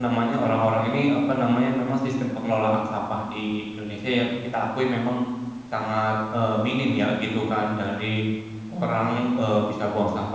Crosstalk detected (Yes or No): No